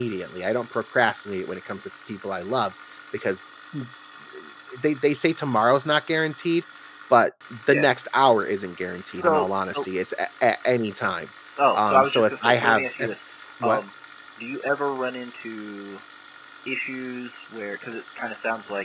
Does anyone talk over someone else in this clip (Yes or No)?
Yes